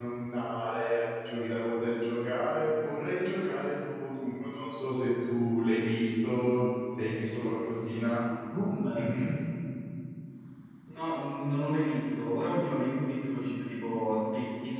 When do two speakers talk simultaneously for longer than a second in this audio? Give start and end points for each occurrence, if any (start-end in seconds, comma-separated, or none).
none